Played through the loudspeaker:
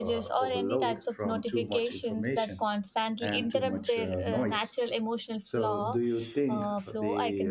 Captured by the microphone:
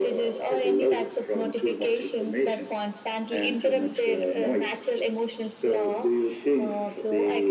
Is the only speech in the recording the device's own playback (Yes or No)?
Yes